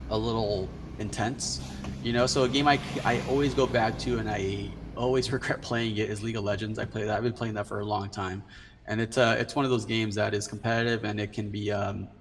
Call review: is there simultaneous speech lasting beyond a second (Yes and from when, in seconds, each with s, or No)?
No